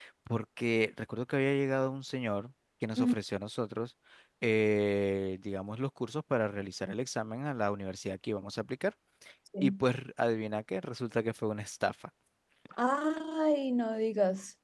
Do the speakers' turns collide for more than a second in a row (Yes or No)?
No